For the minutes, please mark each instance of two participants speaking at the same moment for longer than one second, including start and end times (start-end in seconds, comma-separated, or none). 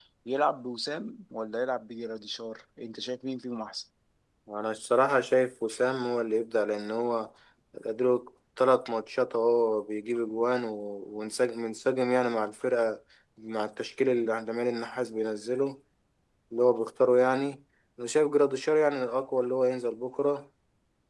none